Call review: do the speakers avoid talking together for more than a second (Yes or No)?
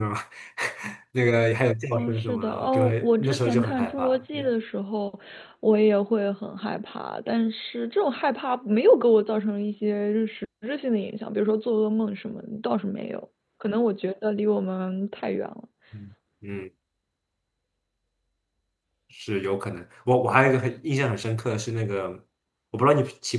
No